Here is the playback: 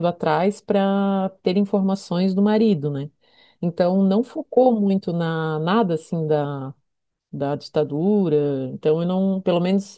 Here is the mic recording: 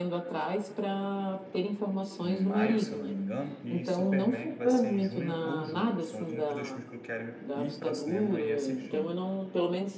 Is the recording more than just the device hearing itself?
Yes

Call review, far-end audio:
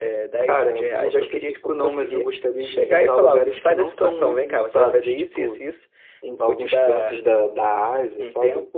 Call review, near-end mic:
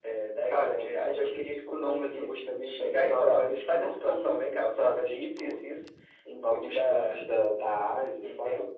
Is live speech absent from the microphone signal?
Yes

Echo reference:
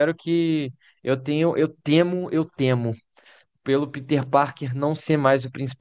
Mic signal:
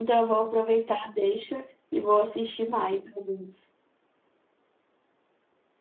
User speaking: Yes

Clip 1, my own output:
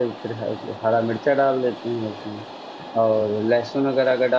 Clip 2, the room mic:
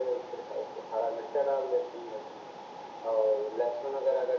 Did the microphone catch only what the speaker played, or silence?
Yes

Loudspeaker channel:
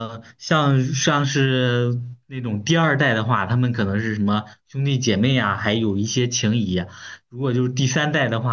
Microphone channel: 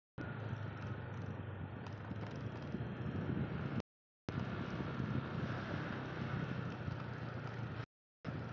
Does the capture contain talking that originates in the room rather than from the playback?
No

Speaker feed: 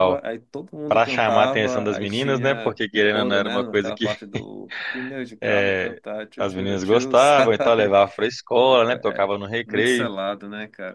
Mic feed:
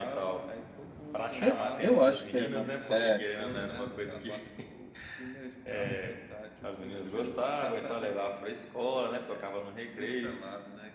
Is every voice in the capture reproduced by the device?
No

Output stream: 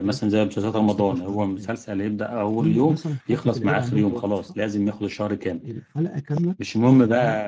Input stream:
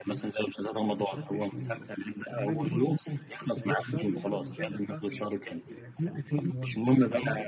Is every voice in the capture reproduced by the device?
No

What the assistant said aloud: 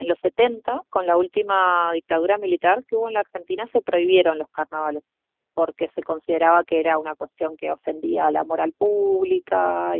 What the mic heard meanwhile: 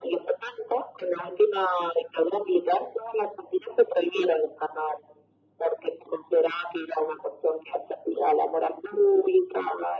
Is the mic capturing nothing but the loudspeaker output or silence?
Yes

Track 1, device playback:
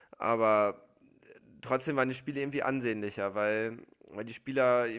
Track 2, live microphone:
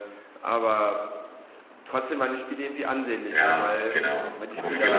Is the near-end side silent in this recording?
No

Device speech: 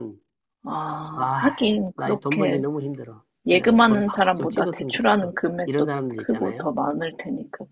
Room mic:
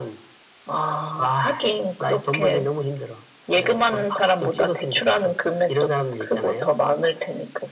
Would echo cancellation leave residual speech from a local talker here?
No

